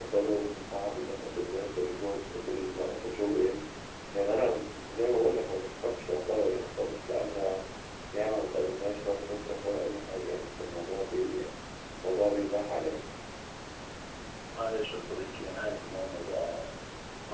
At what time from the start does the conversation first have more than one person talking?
none

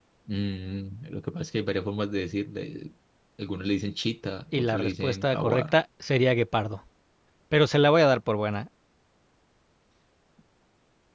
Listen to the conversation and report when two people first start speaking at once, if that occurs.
5 s

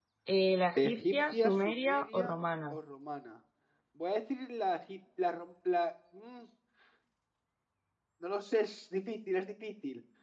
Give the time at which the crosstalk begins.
1 s

